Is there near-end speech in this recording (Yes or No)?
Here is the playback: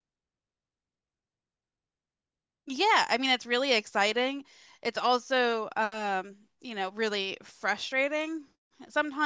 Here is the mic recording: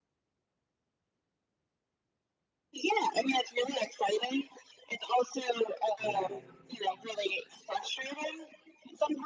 Yes